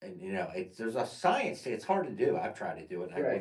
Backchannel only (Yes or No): No